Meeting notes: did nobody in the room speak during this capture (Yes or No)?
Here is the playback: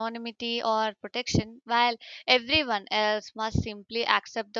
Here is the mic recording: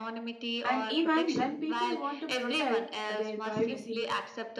No